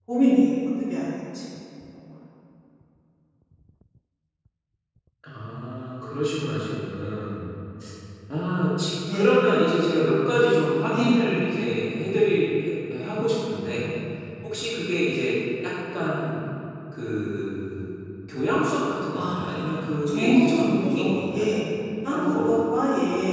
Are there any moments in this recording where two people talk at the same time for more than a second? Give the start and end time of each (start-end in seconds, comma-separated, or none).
19.1-21.5